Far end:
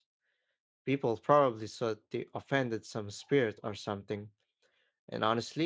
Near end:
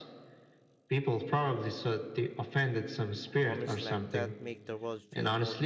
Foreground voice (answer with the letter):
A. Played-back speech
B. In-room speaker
A